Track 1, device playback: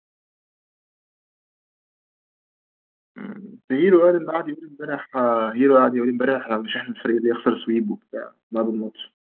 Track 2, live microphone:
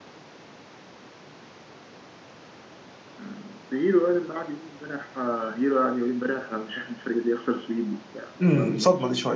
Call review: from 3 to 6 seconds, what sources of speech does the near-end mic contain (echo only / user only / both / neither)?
echo only